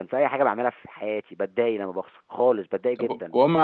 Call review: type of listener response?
taking over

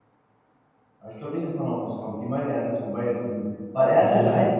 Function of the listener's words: listening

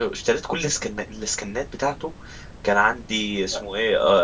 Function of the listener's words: listening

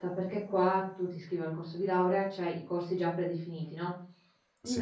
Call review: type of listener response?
listening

